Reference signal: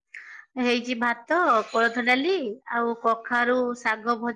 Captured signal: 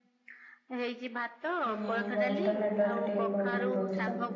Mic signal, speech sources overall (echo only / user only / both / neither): both